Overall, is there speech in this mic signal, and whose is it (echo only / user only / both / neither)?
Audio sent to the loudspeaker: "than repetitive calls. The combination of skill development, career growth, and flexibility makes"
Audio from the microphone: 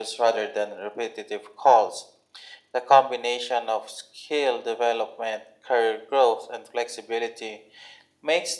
echo only